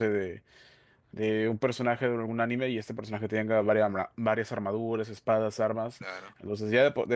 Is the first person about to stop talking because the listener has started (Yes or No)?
No